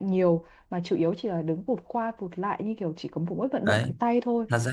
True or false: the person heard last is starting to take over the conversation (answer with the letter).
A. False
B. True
B